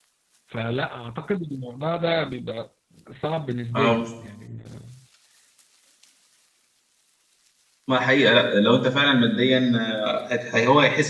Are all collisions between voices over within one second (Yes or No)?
Yes